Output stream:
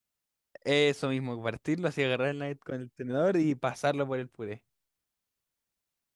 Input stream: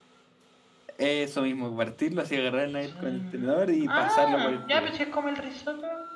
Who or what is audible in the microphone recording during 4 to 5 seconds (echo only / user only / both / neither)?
both